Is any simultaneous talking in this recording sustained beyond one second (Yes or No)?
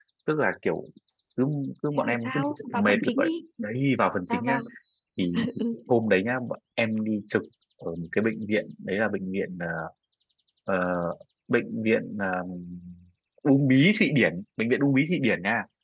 Yes